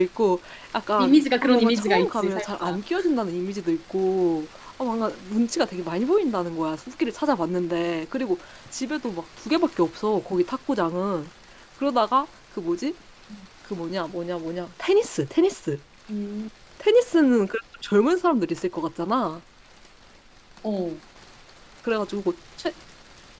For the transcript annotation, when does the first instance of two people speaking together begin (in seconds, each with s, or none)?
1.0 s